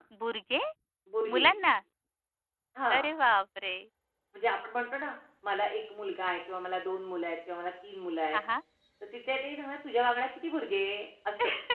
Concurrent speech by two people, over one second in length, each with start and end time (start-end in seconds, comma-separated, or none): none